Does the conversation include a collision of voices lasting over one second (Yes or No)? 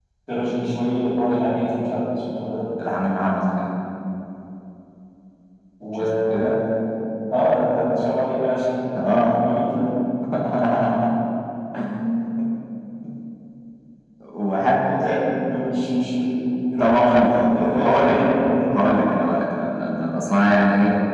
Yes